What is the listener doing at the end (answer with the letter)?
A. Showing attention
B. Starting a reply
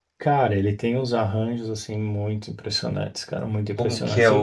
B